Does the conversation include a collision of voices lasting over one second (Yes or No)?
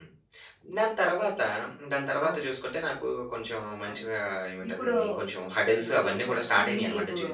Yes